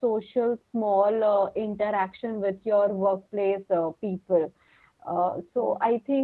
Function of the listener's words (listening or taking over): listening